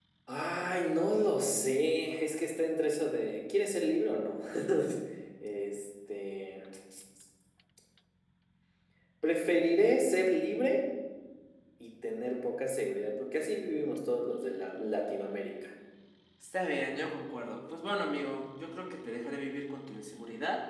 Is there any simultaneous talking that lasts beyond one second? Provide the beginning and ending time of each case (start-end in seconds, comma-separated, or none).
none